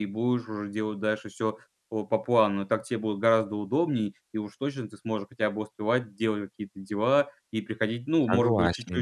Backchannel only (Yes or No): Yes